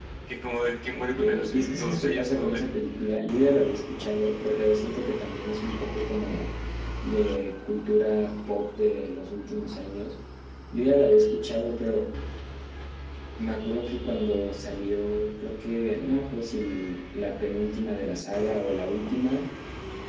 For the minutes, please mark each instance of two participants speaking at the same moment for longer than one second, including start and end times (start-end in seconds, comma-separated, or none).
0.9-2.6